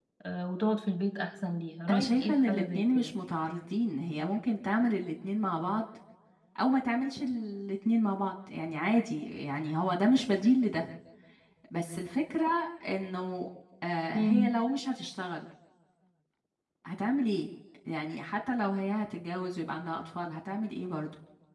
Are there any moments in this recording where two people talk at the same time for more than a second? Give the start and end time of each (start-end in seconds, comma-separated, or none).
1.9-3.2